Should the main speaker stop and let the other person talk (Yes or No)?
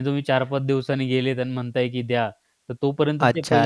Yes